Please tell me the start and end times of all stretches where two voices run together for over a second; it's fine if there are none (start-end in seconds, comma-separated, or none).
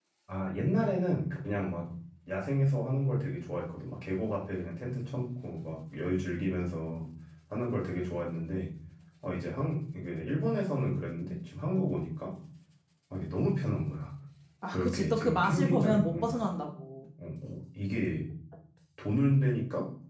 14.7-16.4